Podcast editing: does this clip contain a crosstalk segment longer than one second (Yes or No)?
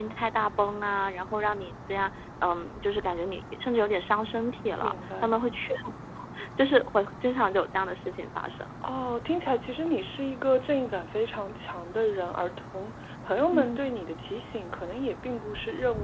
No